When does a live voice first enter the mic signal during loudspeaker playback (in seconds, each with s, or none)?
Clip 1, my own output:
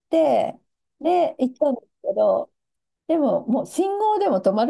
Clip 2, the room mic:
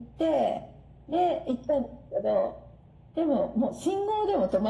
none